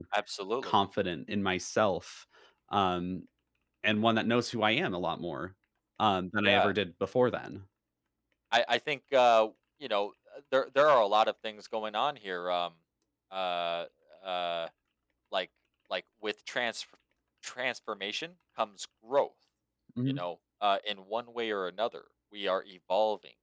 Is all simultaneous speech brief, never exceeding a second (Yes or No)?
Yes